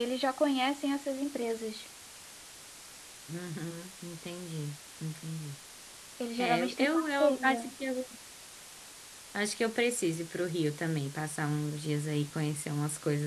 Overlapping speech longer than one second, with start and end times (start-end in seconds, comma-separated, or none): 6.4-7.7